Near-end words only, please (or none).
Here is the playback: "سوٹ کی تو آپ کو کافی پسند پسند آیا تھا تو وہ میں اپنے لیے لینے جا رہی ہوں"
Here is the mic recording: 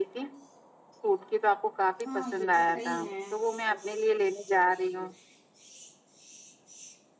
ہاں یہ تو صحیح ہے